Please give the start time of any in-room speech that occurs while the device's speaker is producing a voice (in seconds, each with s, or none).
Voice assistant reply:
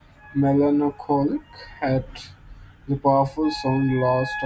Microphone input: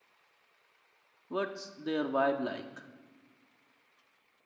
1.3 s